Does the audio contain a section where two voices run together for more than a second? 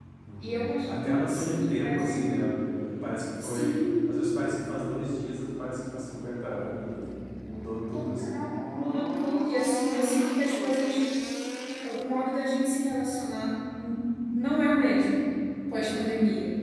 Yes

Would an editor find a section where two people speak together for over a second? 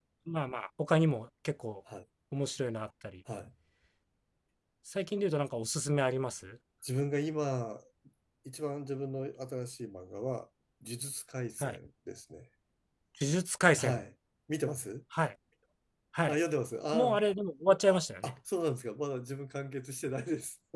No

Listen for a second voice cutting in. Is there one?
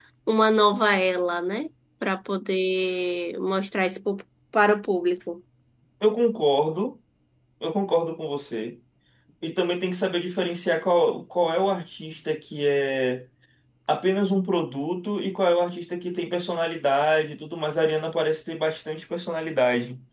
No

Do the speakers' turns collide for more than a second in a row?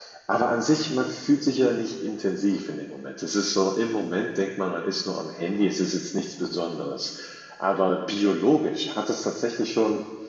No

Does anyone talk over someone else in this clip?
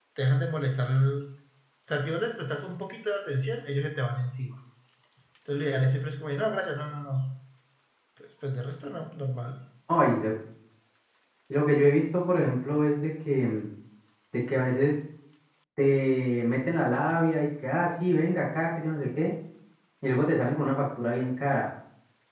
No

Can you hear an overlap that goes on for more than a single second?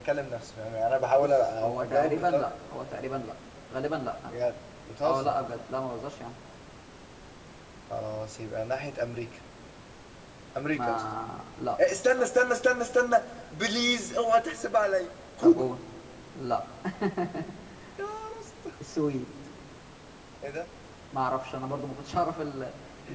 Yes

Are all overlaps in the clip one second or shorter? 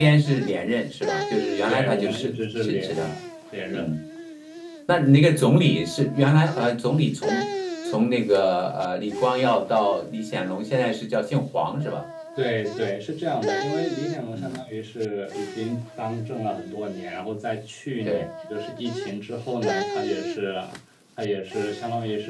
No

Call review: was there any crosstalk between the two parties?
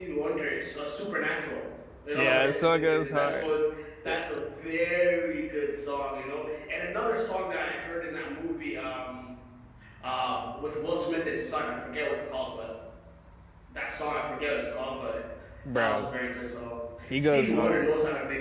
Yes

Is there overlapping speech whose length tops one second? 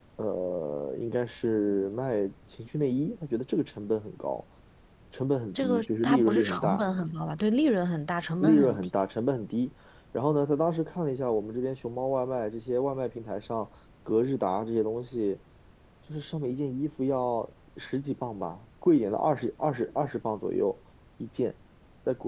Yes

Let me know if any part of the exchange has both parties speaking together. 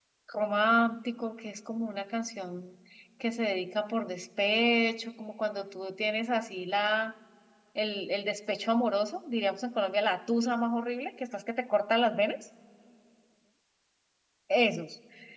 No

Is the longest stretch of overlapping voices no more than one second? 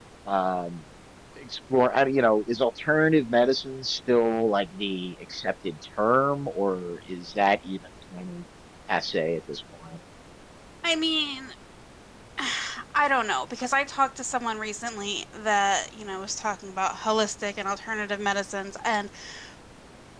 Yes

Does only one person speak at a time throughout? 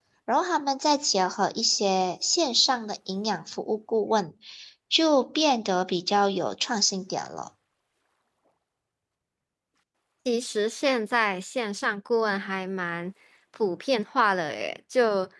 Yes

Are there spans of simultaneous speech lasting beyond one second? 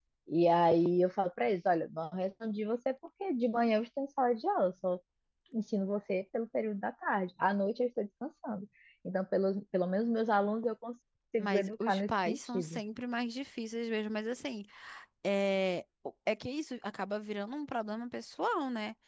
Yes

